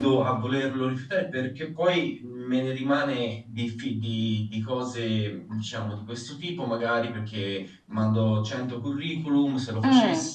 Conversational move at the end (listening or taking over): listening